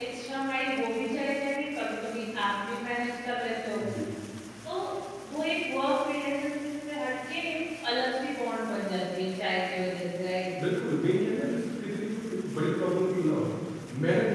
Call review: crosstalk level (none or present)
none